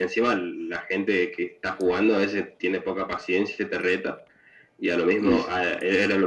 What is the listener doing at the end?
listening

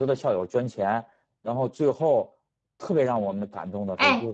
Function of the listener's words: taking over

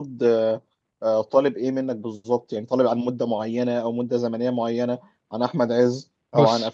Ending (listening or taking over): listening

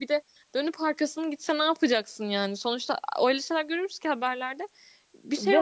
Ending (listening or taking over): taking over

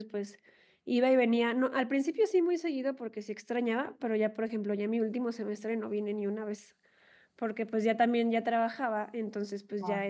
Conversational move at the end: listening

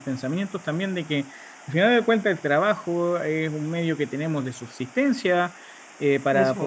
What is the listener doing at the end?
listening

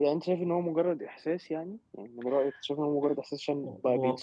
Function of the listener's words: listening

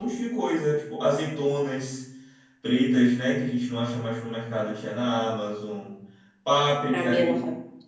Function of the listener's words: taking over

